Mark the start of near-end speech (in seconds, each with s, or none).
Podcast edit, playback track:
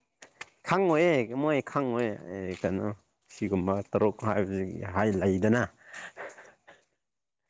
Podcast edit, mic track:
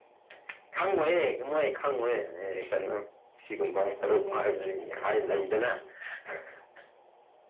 3.8 s